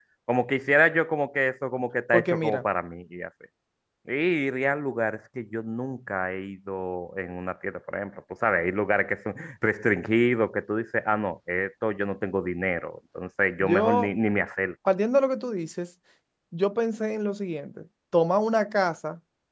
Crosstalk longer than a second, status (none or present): none